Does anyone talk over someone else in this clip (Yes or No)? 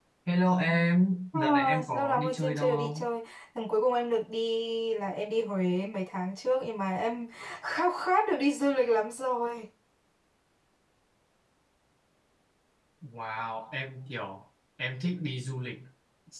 Yes